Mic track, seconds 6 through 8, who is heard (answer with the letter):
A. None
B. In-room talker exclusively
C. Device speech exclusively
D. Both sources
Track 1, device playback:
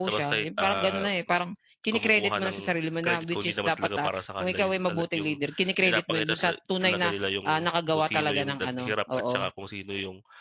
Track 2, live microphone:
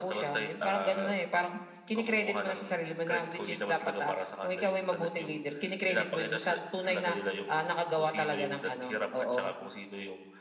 C